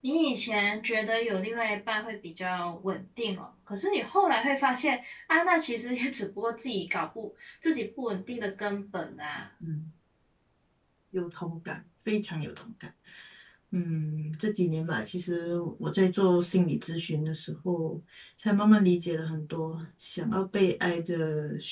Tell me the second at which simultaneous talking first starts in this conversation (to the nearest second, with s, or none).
none